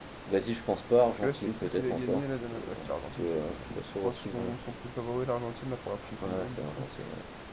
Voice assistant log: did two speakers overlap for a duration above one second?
Yes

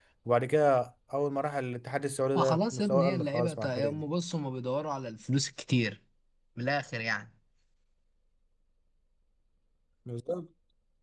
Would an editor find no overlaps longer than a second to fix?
No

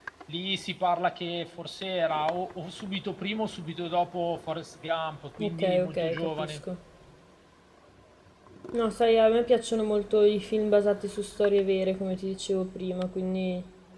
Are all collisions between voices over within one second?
No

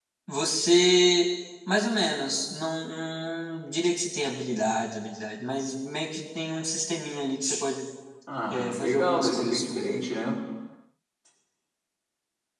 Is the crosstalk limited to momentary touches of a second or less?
No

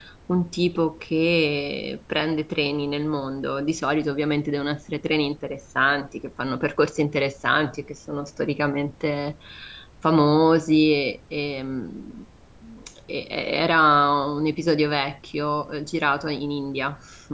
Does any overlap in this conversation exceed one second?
No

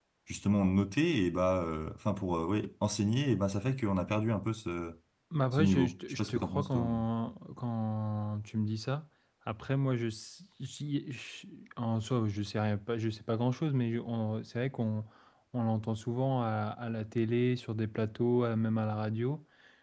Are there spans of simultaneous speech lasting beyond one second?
Yes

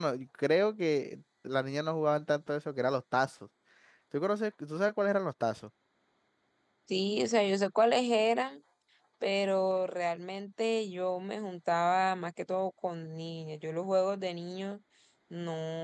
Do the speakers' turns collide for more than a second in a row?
No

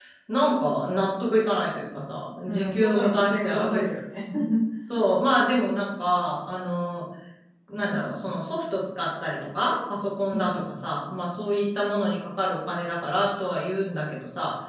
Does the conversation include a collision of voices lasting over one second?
Yes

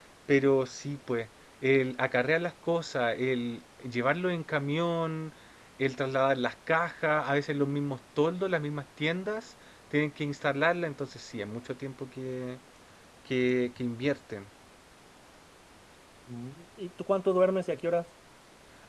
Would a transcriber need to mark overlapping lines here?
No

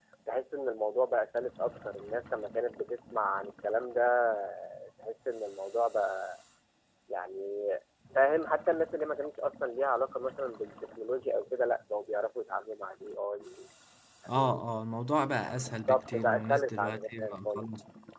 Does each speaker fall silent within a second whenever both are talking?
No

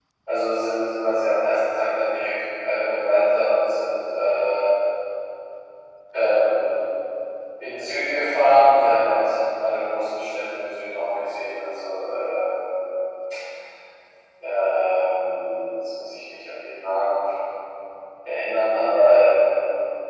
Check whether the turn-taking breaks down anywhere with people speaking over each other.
No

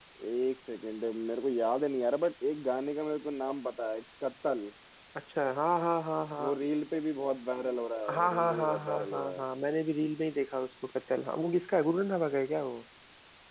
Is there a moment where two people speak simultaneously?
Yes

